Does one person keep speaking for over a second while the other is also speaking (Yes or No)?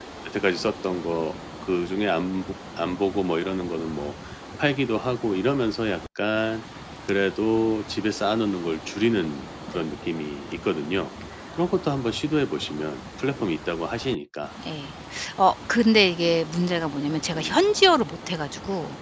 No